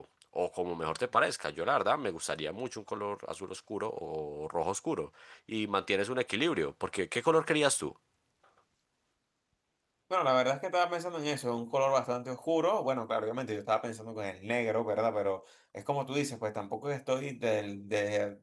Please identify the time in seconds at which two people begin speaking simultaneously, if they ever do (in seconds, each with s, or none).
none